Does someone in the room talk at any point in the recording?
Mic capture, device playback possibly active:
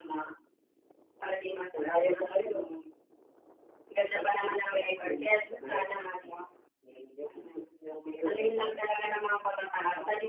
No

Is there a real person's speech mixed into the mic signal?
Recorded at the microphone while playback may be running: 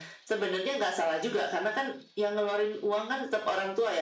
No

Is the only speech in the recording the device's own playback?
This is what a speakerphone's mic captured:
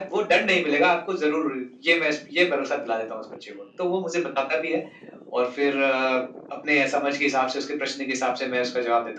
Yes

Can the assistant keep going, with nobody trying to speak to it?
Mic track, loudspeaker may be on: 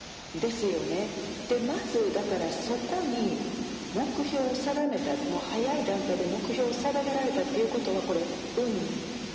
Yes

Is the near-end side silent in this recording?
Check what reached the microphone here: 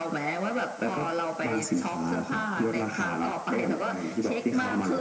No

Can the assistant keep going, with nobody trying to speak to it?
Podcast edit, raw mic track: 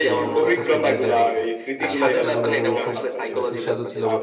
No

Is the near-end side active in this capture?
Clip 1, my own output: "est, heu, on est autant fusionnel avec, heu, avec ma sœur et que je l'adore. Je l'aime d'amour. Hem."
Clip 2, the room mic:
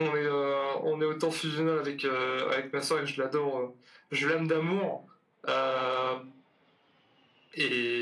No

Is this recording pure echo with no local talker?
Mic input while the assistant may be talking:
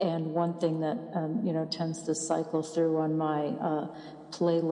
Yes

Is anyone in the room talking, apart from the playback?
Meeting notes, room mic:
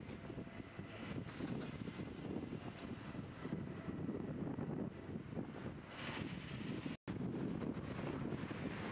No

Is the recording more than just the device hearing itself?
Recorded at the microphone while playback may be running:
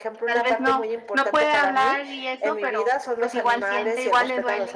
Yes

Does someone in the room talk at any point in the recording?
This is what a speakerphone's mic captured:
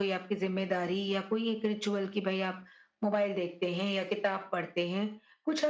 No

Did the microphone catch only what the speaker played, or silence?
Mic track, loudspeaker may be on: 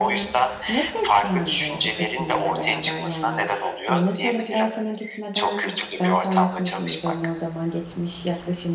No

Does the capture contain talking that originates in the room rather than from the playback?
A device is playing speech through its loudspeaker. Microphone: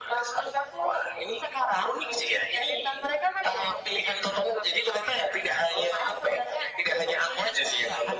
No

